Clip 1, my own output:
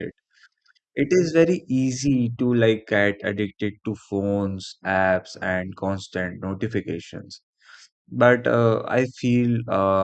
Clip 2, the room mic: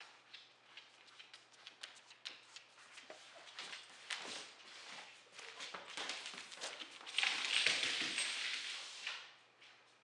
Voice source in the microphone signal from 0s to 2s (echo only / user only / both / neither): neither